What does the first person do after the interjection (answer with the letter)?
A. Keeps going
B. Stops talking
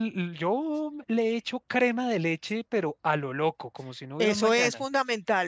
B